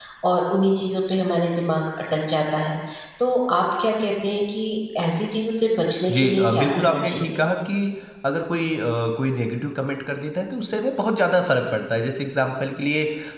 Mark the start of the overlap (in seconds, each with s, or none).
6.1 s